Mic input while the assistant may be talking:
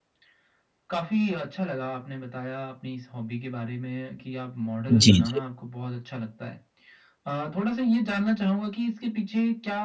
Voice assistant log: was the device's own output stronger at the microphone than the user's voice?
No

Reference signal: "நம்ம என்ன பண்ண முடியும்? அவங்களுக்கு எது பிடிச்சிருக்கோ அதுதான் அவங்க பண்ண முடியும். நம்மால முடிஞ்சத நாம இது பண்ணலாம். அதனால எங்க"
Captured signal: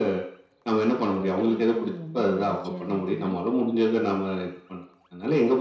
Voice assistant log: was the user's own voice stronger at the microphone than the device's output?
No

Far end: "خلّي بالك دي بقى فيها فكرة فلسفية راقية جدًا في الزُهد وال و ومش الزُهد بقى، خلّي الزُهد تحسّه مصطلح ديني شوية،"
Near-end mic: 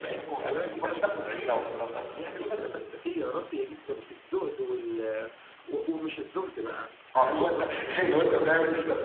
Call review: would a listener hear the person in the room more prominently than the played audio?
Yes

